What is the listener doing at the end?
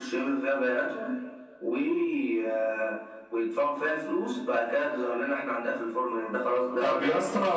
taking over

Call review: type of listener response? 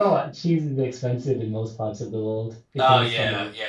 taking over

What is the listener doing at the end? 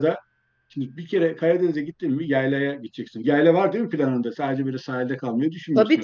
taking over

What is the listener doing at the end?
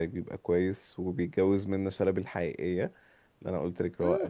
taking over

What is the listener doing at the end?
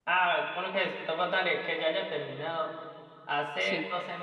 listening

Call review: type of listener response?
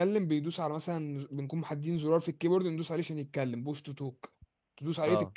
listening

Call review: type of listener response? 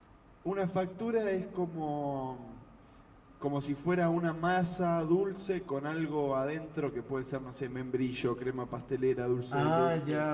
taking over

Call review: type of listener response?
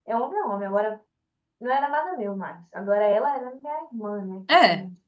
listening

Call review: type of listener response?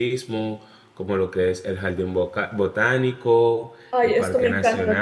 taking over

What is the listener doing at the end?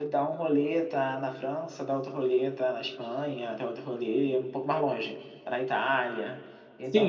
taking over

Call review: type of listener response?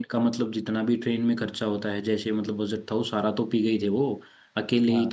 listening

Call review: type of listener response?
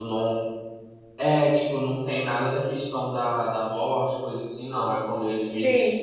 listening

